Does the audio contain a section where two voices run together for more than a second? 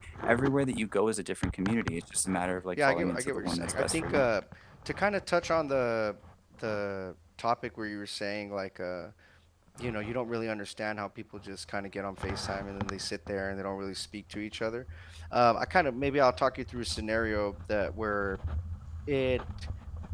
Yes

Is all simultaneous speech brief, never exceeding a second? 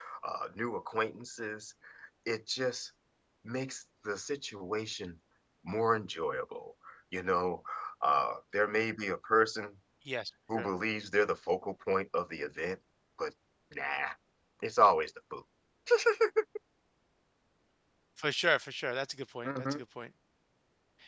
Yes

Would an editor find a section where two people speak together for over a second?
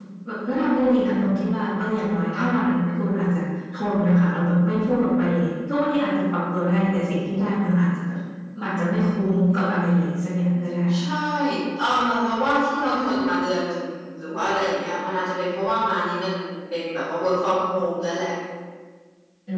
No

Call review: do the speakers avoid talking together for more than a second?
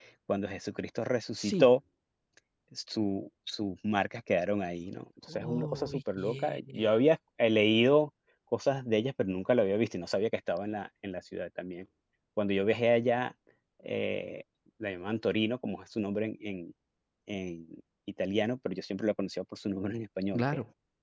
No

